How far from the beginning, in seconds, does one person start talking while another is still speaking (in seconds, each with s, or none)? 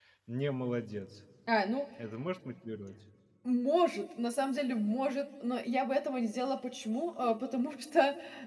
none